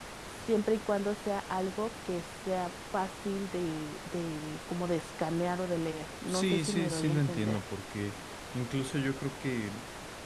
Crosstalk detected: Yes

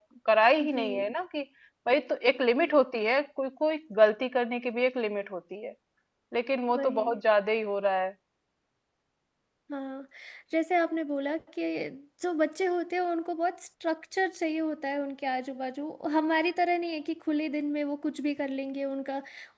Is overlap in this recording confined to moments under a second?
Yes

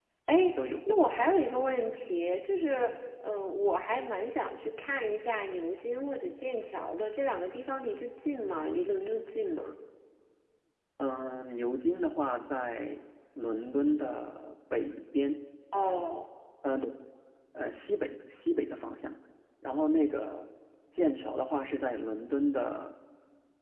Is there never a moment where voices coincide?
Yes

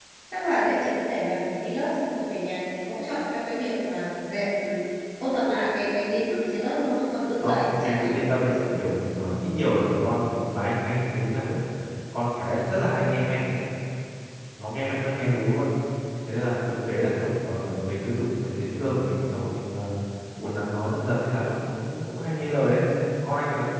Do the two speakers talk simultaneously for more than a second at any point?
Yes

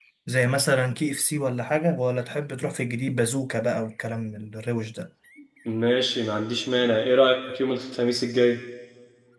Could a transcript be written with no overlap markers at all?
Yes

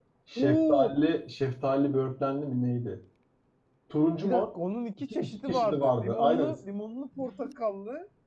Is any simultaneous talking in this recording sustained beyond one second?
Yes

